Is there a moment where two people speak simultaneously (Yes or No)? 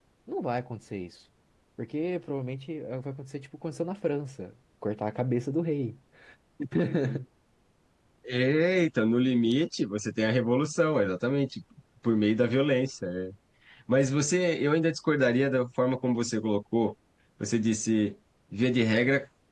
No